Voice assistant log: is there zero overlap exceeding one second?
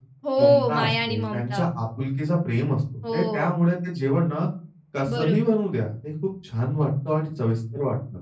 No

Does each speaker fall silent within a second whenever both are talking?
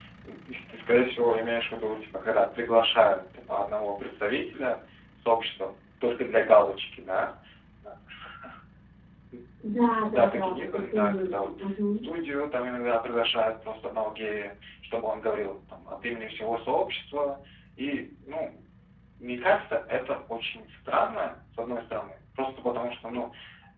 No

